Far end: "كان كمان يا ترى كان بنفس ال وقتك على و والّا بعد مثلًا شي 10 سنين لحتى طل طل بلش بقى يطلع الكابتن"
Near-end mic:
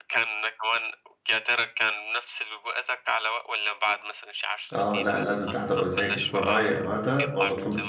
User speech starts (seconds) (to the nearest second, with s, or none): 5 s